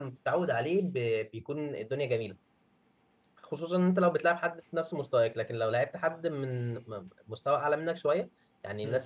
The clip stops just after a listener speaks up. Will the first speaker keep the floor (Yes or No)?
Yes